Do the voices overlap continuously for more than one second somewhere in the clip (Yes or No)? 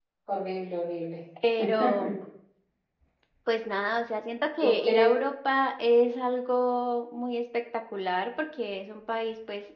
No